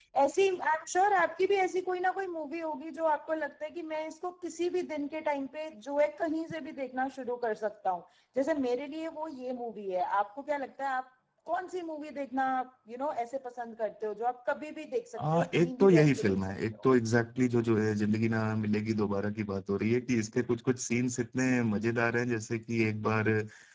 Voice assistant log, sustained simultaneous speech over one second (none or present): present